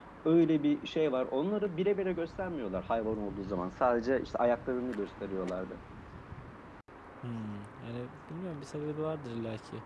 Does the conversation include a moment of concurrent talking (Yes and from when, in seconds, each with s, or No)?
No